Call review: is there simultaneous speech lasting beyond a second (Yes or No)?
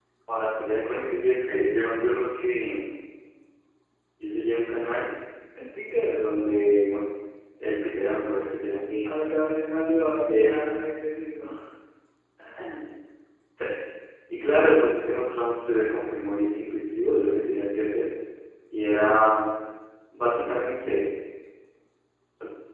No